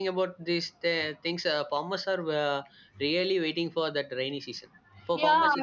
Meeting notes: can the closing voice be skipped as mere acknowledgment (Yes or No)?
Yes